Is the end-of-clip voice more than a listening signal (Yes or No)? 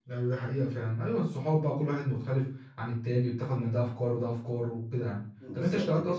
No